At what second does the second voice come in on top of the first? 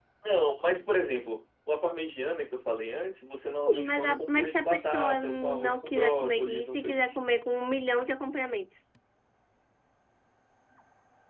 3.6 s

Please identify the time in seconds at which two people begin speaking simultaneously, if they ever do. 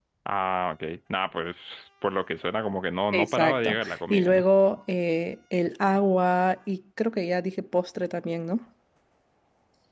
3.1 s

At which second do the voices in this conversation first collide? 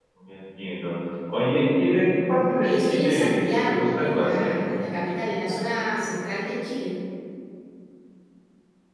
2.6 s

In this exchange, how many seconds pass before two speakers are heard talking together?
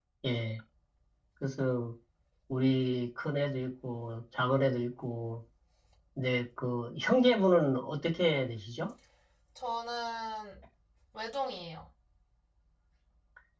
none

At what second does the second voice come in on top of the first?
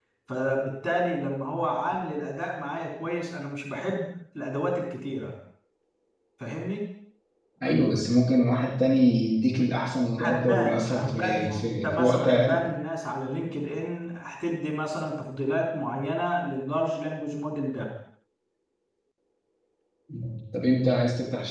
10.2 s

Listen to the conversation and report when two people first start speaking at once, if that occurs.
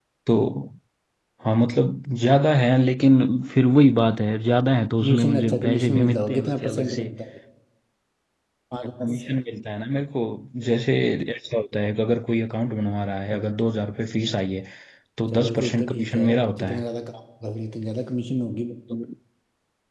5.0 s

